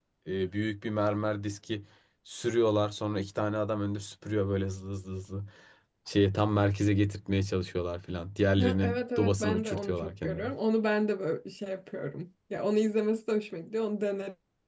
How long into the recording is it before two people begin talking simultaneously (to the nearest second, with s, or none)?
9 s